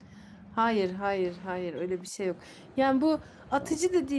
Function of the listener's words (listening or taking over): listening